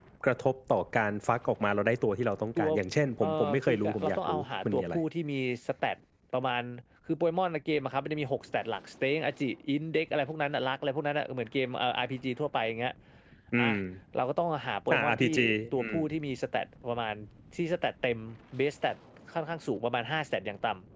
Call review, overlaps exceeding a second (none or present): present